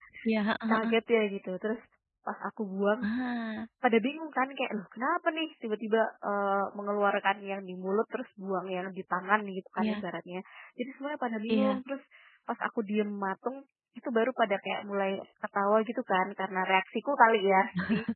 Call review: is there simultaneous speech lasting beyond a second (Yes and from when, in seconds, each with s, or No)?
No